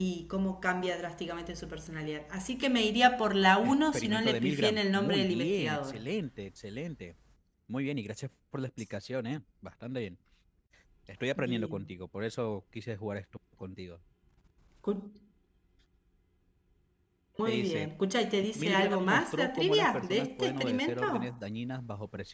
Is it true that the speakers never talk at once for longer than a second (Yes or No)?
No